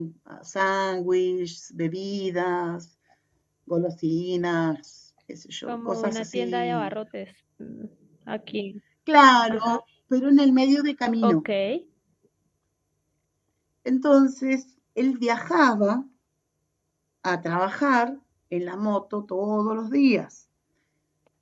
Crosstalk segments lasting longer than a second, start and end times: 5.7-6.9

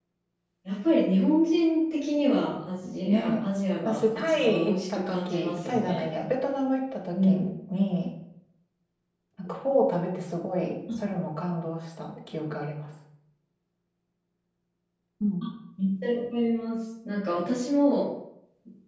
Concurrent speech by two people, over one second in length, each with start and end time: 3.9-6.1

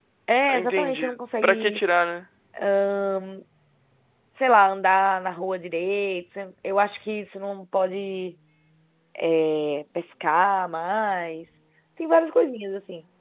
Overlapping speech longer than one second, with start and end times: 0.5-1.8

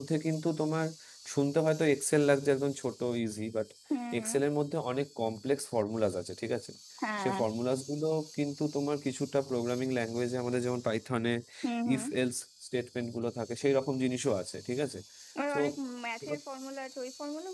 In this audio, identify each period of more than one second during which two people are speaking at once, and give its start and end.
none

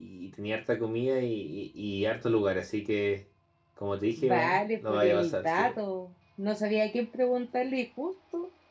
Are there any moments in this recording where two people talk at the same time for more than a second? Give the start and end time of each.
4.2-5.8

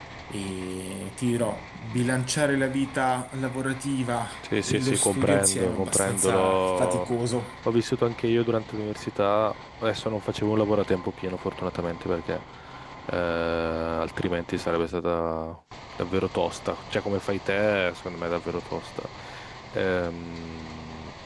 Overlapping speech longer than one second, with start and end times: 4.6-7.0

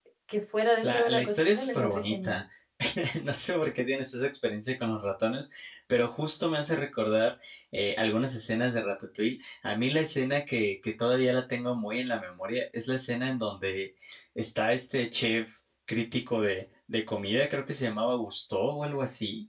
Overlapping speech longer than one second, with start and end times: 0.8-2.4

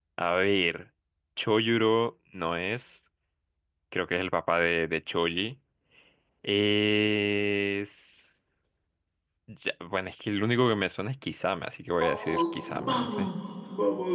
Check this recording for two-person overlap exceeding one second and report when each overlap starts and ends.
12.0-13.3

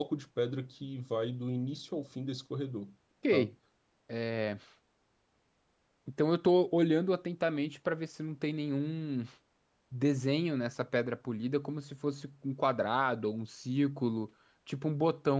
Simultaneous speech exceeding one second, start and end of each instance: none

